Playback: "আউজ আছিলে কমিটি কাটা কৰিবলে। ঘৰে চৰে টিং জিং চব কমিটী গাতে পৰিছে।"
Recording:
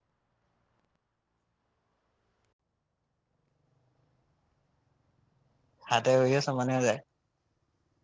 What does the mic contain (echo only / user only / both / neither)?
user only